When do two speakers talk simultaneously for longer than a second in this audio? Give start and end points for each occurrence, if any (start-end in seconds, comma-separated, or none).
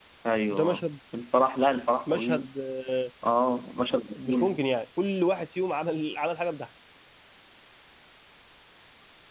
none